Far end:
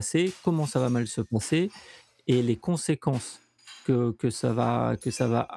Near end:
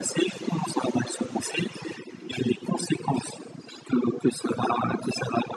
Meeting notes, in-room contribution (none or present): none